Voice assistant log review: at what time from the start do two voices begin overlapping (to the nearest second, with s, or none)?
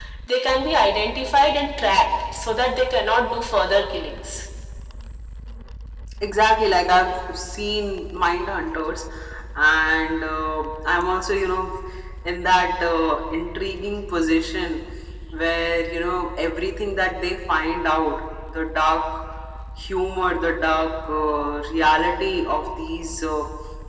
none